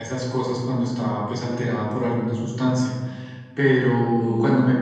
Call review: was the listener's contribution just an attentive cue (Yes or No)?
Yes